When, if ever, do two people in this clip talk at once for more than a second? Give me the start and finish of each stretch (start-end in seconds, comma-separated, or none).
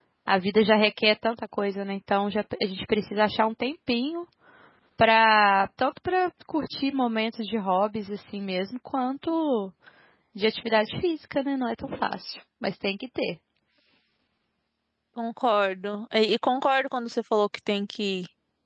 none